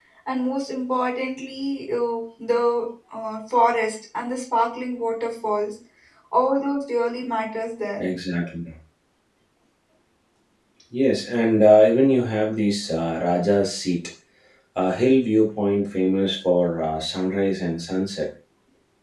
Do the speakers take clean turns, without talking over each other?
Yes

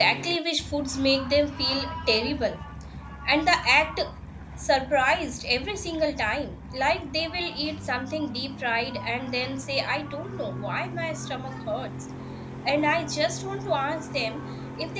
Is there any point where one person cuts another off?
No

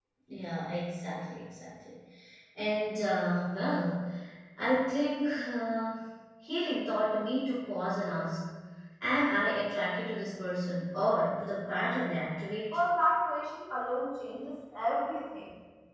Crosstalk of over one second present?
No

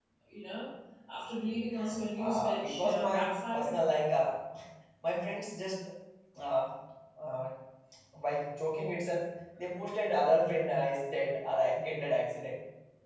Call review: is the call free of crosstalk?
No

